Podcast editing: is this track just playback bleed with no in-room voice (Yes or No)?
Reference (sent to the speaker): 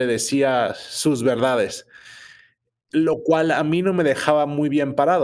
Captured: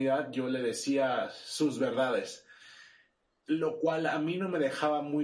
Yes